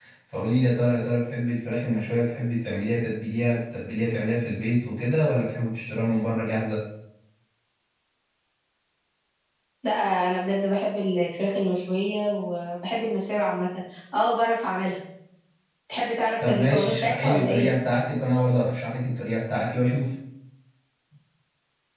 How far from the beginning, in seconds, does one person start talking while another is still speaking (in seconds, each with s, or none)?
16.4 s